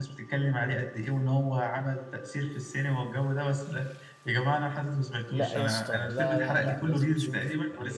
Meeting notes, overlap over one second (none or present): present